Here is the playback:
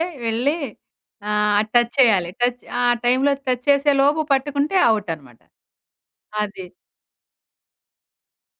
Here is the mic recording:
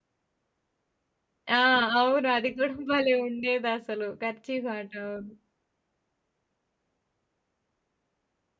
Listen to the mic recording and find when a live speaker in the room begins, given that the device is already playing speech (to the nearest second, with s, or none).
1 s